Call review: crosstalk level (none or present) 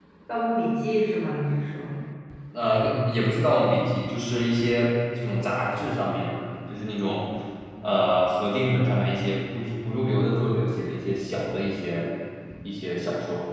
none